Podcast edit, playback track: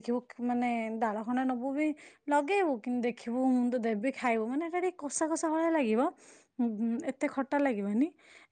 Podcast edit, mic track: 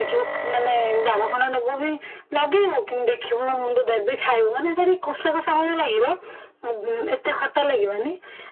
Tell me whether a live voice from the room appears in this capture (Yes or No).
No